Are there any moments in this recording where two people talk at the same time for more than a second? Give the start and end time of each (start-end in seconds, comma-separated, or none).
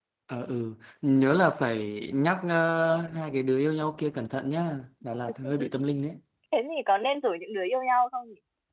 none